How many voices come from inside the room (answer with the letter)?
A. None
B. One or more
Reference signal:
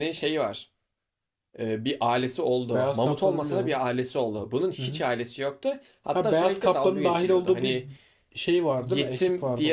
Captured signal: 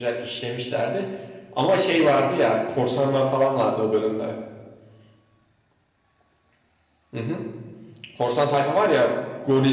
B